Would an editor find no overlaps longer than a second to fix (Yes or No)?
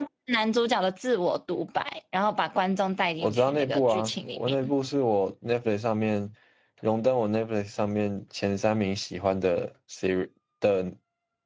No